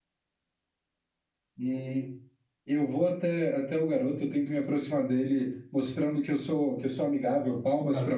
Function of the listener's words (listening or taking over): taking over